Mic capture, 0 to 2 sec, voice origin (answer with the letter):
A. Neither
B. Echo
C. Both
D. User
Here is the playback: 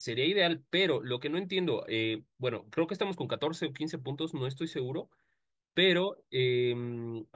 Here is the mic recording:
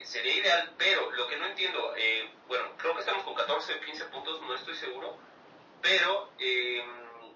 B